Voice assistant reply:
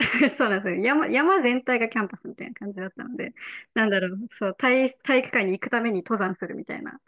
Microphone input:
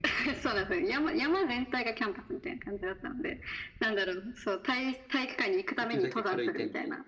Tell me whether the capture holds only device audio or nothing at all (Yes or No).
No